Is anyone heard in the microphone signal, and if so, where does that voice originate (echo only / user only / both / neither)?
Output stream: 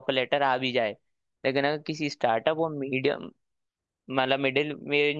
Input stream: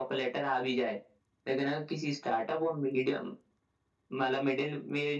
echo only